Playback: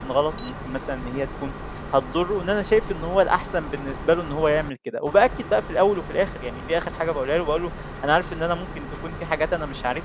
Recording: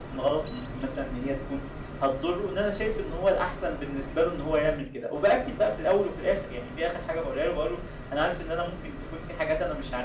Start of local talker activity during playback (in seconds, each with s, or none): none